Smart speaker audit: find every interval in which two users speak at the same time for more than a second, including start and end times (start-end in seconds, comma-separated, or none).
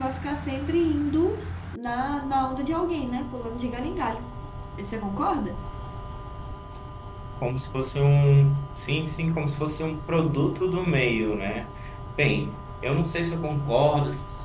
none